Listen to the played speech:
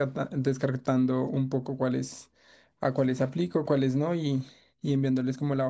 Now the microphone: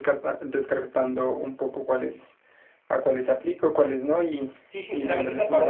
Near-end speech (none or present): present